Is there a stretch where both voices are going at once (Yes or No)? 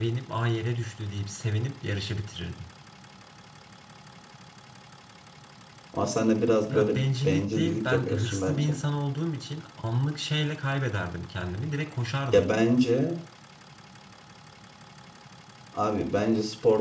Yes